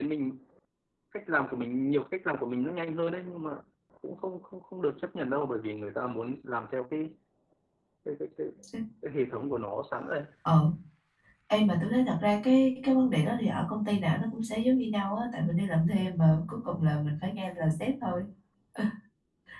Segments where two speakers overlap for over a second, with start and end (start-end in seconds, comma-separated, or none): none